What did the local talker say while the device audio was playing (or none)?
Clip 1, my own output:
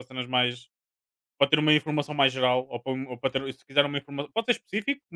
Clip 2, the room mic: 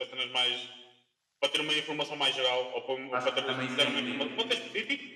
Acho que também isso é incrível.